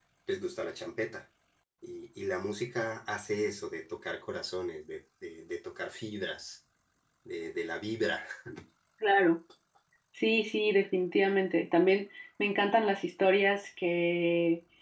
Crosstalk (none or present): none